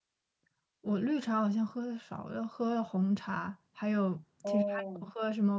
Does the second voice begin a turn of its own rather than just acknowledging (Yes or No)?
No